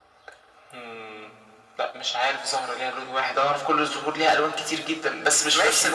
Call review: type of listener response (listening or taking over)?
taking over